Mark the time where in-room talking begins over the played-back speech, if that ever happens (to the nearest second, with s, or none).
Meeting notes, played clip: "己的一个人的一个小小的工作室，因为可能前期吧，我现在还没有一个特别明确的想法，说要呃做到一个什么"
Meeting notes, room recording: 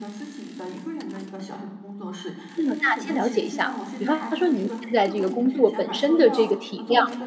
3 s